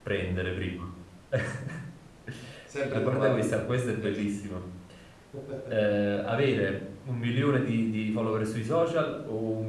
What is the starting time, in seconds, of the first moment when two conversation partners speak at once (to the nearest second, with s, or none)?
3 s